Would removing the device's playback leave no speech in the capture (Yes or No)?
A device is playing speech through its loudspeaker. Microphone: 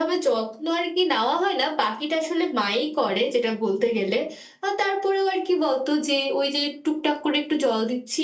Yes